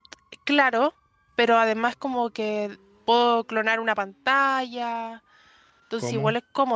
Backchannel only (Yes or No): Yes